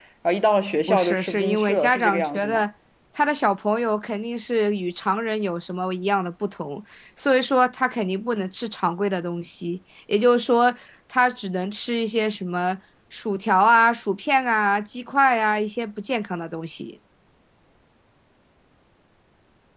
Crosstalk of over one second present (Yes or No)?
Yes